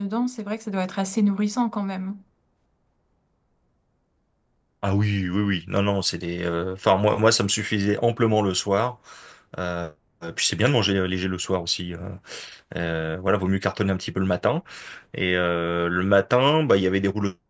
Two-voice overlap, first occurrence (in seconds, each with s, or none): none